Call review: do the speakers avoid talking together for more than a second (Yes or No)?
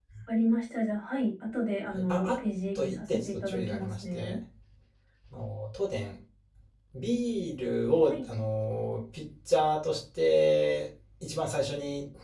No